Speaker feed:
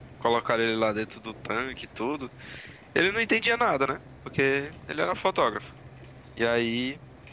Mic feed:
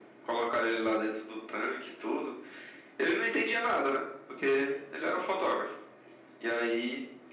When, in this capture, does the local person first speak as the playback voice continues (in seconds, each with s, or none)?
none